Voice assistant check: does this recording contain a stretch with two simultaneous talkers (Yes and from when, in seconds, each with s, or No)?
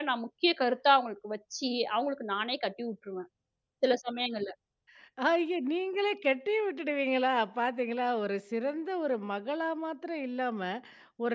No